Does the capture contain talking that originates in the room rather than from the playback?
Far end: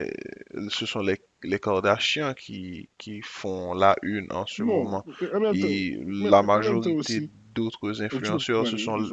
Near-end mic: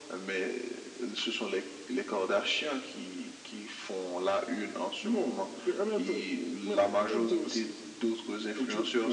No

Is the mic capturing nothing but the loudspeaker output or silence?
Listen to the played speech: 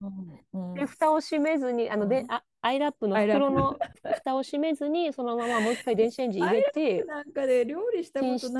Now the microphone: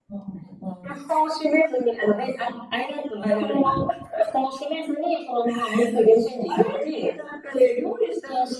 Yes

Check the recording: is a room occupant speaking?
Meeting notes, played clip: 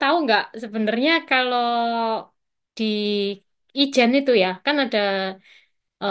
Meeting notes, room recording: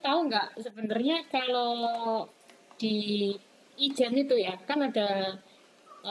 No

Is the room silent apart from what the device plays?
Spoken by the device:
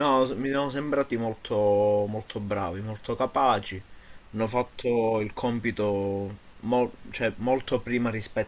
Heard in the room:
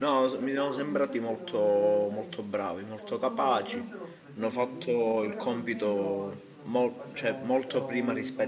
No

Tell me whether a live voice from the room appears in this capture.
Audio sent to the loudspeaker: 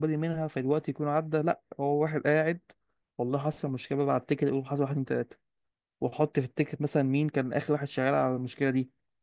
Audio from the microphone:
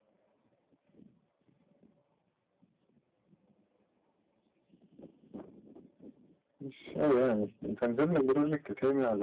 Yes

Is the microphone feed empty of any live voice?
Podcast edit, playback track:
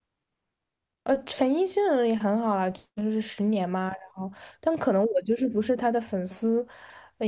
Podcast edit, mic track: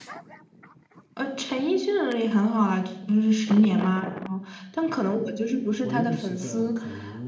No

